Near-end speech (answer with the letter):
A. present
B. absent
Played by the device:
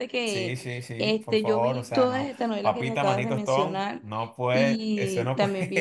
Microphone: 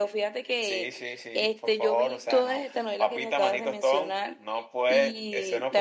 B